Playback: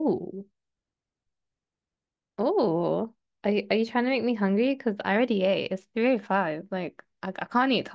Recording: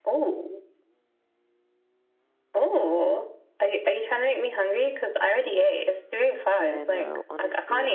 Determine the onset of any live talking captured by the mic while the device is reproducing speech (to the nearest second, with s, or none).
6 s